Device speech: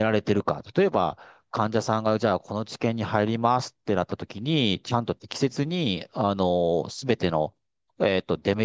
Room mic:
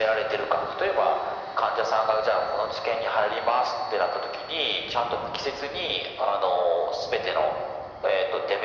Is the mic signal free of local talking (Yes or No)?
Yes